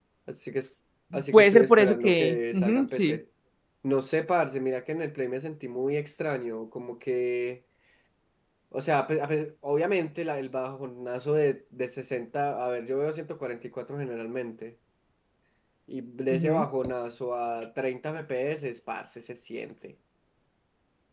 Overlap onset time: 1.3 s

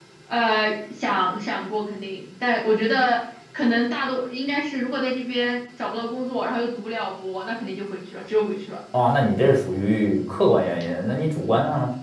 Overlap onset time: none

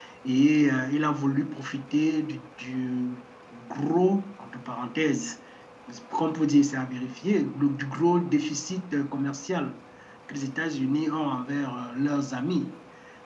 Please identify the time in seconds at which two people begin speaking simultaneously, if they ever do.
none

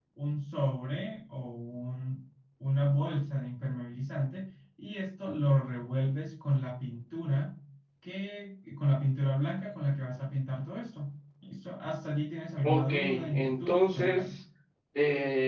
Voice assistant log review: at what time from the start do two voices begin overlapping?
12.6 s

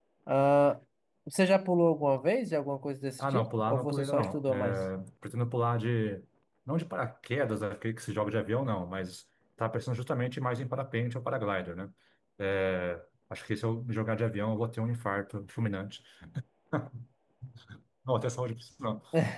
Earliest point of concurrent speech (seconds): 3.2 s

